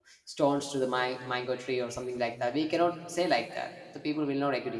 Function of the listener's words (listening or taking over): listening